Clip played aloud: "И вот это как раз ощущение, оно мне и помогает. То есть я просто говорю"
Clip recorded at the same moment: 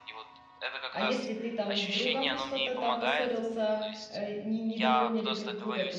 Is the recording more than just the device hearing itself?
Yes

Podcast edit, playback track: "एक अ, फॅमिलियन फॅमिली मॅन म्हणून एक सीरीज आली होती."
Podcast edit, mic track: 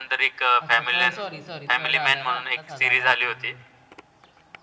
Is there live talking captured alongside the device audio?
Yes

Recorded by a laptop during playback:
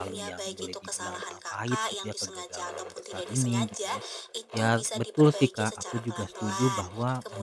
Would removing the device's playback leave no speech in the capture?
No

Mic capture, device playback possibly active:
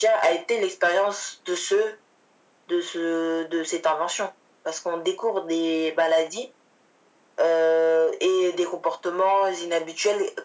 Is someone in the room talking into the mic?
No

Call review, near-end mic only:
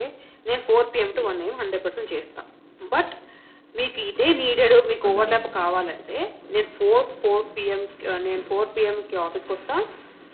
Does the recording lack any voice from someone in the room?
No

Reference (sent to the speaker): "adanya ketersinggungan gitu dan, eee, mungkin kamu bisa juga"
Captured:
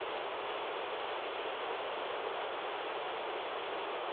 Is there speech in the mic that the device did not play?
No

